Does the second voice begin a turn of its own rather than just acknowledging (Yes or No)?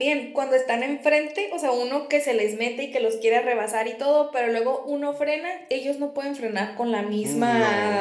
No